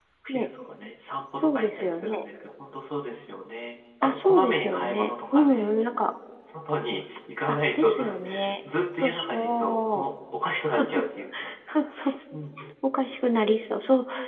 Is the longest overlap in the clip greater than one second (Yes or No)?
Yes